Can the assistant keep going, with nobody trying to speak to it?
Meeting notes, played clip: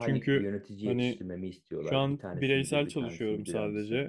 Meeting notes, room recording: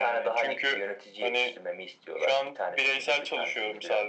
Yes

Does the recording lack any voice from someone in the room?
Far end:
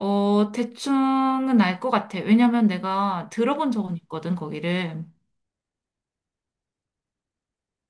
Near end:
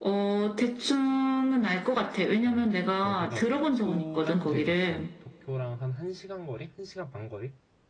No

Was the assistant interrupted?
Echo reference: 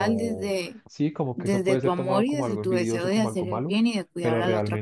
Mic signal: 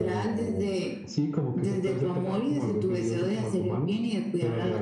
No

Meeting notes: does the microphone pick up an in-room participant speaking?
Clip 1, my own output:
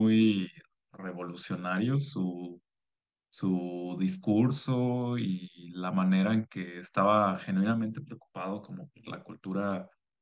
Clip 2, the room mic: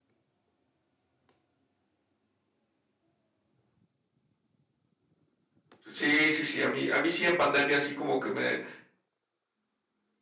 Yes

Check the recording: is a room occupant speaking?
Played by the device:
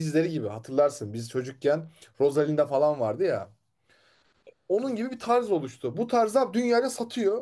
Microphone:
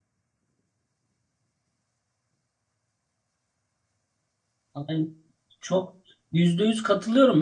Yes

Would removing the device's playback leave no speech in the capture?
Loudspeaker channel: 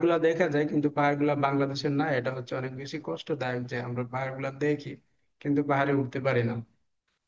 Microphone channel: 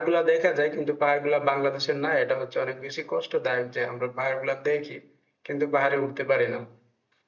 Yes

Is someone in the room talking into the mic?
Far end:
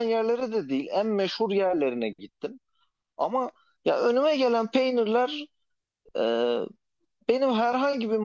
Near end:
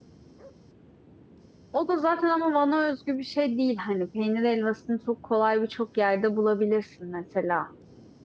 Yes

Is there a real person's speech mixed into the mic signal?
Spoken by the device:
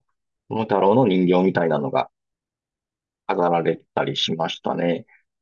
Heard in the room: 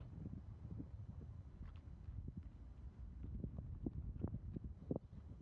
No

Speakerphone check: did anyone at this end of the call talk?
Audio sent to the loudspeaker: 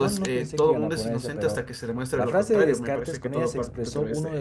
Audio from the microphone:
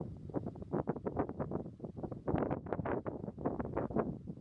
No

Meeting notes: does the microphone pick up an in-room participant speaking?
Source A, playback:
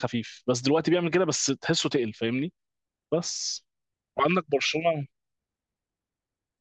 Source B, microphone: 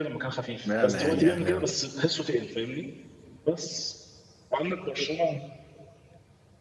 Yes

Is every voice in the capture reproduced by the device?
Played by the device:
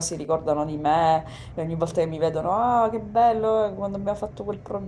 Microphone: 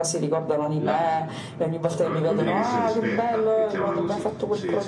No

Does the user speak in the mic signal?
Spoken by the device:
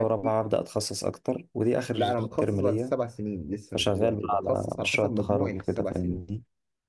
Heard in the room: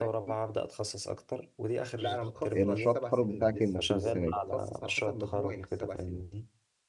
Yes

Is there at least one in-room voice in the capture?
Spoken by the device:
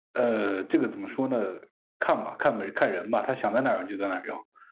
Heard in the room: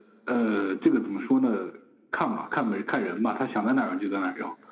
No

